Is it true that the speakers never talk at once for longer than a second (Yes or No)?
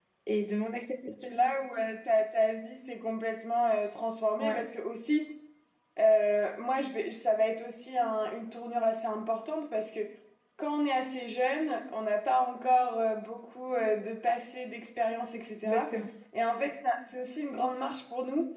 Yes